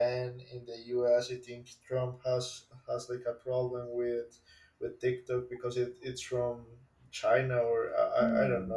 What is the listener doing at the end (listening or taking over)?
taking over